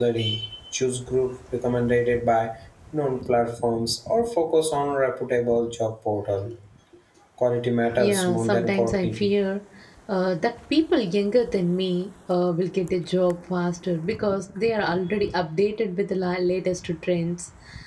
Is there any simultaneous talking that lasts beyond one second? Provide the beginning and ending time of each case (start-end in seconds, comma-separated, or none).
8.0-9.3